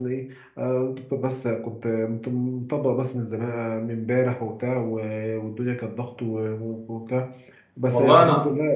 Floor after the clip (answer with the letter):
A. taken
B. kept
B